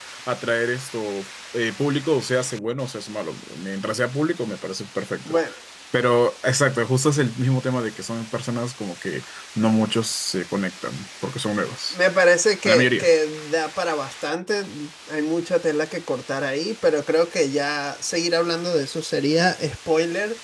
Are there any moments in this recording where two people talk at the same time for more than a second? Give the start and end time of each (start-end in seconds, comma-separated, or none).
none